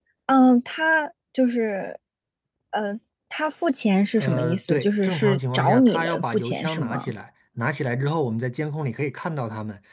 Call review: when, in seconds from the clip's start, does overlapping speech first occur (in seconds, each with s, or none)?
4.2 s